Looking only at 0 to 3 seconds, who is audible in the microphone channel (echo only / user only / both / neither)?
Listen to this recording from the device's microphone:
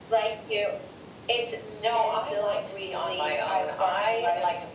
echo only